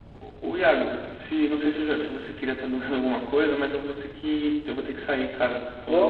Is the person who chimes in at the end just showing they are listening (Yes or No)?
No